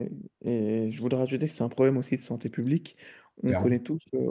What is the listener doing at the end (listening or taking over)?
listening